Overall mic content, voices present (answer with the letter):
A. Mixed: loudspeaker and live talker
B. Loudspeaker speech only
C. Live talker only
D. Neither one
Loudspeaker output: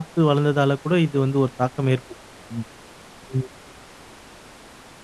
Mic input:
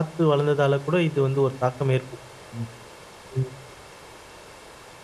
B